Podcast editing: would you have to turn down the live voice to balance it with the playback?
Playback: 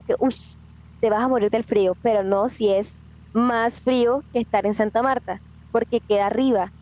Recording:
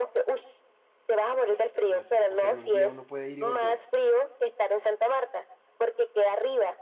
No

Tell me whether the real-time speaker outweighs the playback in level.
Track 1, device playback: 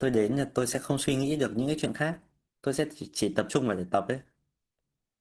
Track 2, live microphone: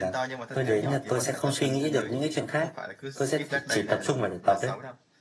No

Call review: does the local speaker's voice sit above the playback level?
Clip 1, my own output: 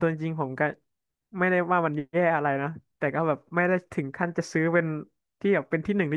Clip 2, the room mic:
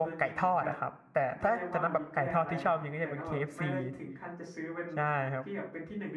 Yes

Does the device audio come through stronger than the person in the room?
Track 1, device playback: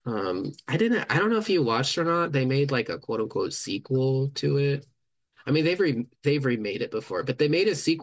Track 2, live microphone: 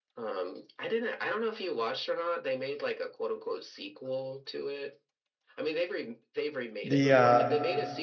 No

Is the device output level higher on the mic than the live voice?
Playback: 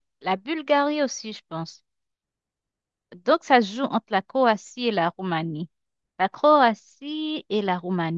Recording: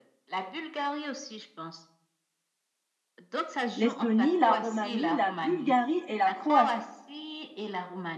No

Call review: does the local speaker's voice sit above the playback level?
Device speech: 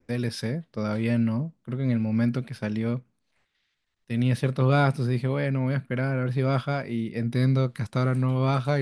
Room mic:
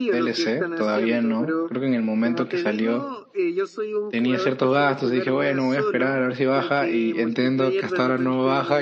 No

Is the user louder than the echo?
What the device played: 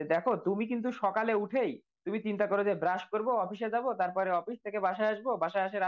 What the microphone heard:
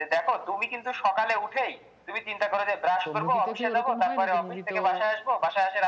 No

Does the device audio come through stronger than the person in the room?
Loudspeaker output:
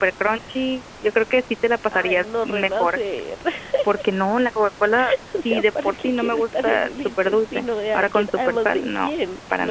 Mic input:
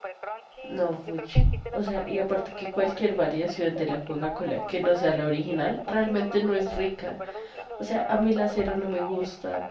No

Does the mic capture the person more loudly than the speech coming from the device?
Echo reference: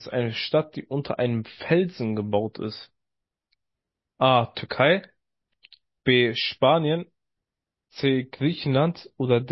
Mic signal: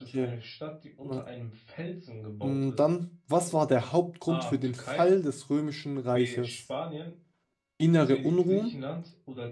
Yes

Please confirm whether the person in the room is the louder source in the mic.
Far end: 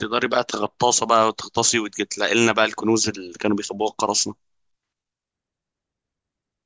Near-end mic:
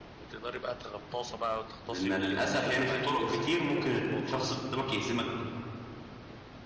Yes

